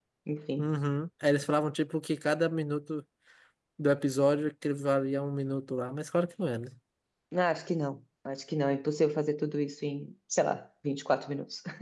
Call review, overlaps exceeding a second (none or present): none